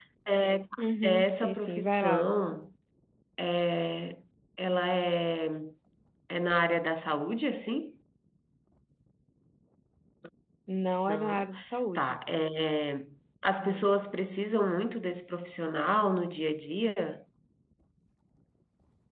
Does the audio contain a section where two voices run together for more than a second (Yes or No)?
Yes